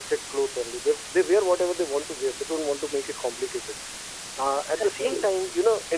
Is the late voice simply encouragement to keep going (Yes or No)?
Yes